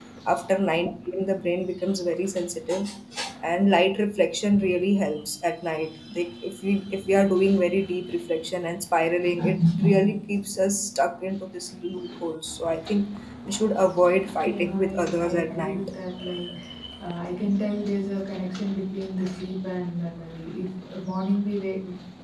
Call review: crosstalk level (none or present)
present